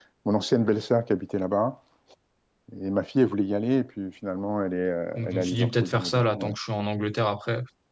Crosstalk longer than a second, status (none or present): present